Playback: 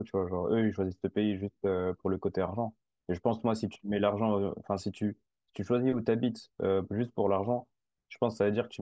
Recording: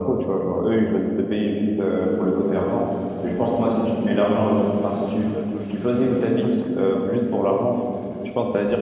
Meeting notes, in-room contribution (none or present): present